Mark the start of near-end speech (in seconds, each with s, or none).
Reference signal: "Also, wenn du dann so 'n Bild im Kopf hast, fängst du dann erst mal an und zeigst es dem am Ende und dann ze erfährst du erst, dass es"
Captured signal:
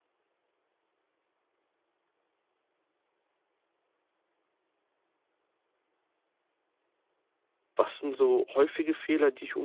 7.8 s